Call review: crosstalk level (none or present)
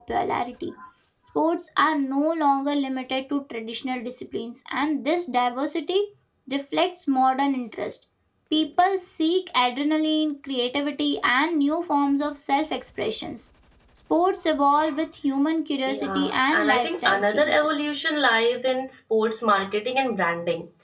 present